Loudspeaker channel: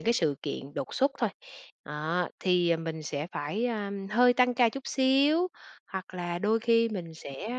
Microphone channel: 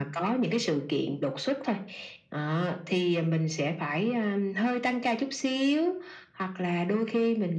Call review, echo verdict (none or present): present